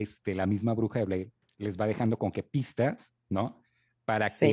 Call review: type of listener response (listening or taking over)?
listening